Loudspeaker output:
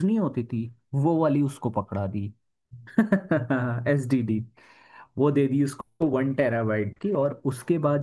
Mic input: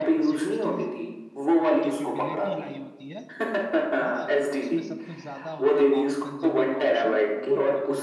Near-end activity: present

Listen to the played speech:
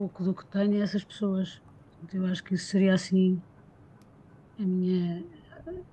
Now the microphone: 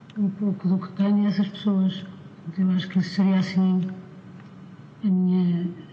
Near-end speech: none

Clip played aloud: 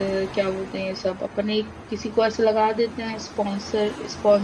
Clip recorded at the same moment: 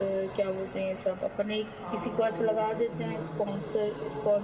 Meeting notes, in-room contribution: present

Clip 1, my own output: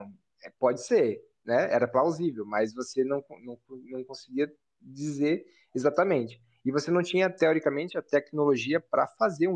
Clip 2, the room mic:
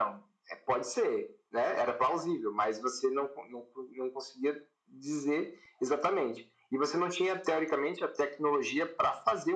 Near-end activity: none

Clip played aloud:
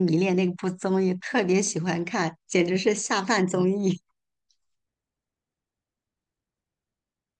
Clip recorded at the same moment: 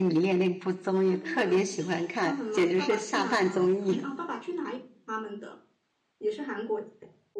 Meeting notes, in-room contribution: present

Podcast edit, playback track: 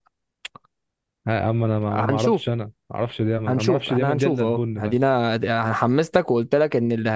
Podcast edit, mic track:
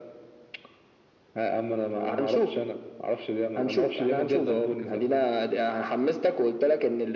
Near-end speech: present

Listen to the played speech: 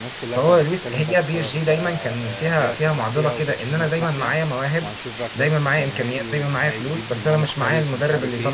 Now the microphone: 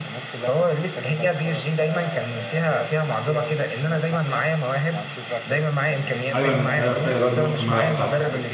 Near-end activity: present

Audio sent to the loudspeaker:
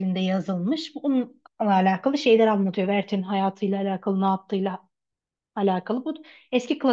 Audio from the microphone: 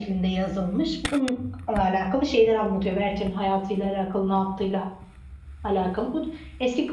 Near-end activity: none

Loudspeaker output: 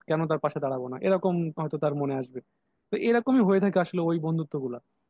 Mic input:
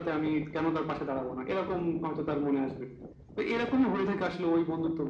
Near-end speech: none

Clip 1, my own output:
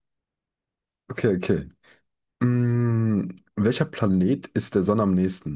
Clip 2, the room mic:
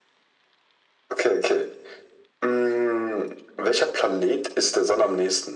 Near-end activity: none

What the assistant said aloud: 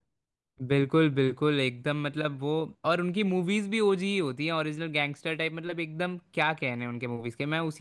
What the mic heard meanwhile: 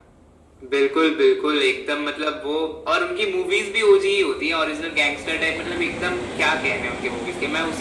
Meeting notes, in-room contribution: none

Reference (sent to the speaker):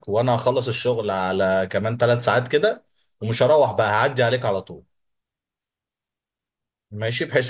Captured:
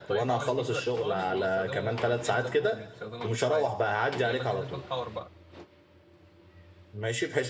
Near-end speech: present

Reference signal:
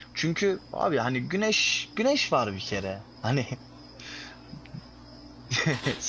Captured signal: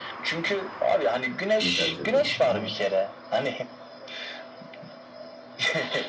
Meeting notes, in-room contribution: present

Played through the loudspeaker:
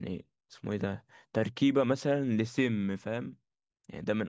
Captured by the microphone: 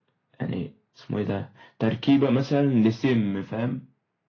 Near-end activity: none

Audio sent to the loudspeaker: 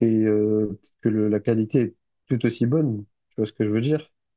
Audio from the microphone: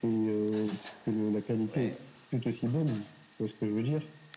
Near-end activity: present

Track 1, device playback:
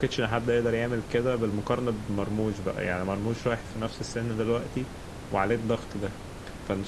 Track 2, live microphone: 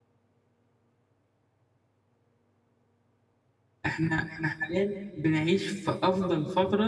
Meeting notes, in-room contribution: present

